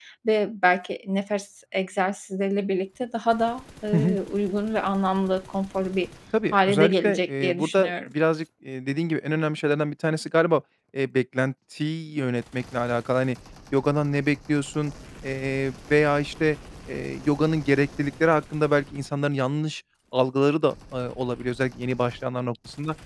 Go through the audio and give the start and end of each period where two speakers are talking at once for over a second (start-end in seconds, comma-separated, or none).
6.5-7.9